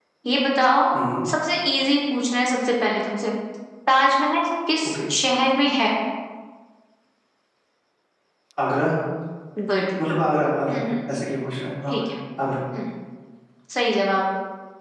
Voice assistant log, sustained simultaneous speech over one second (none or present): none